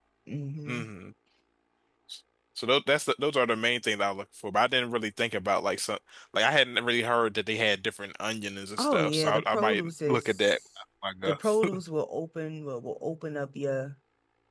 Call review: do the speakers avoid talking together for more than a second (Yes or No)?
No